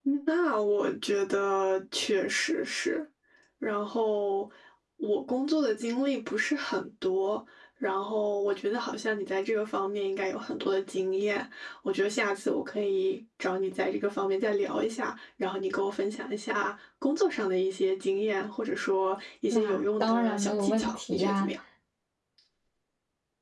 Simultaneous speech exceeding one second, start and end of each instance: 19.5-21.5

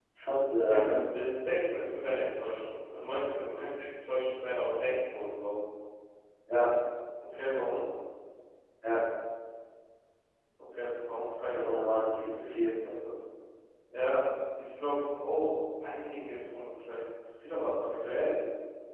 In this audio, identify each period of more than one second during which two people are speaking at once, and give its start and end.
11.4-12.7

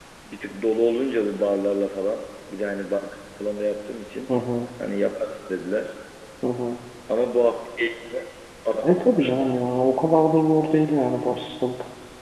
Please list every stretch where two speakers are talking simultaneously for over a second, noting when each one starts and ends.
none

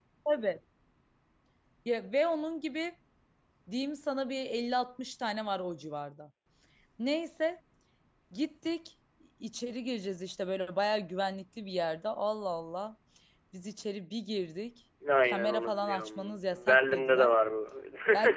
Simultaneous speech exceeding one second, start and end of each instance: 15.2-17.4

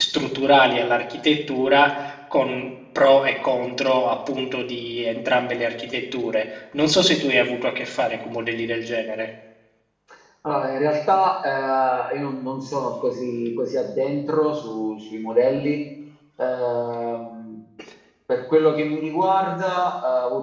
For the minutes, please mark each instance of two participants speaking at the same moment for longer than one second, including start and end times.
none

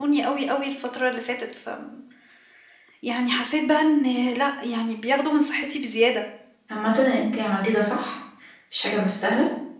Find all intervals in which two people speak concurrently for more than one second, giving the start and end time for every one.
none

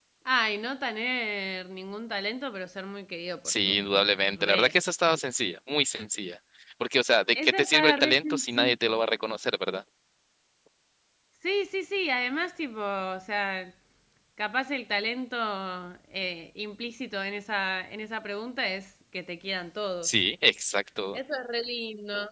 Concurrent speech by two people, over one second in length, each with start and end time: 7.3-8.9

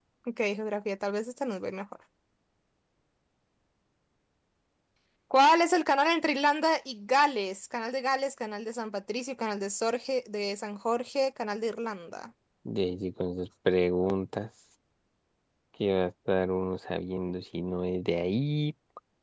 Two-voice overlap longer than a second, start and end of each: none

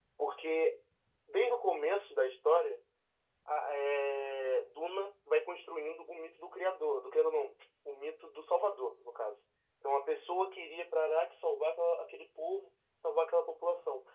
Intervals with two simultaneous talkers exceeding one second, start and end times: none

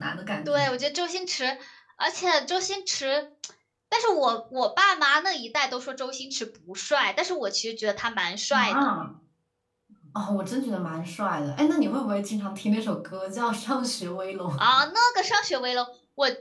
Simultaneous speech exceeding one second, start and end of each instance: none

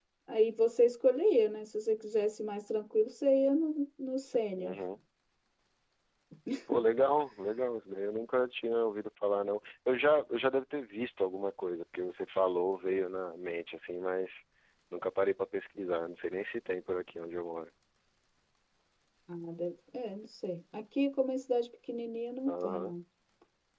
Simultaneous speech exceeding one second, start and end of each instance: none

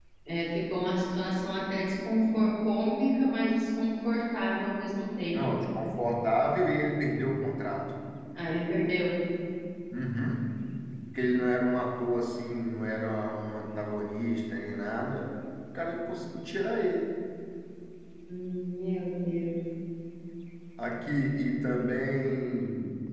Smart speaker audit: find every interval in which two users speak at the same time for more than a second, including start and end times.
none

